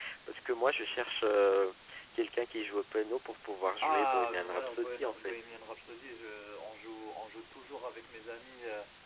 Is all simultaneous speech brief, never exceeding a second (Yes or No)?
No